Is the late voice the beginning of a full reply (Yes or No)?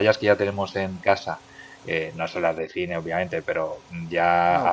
No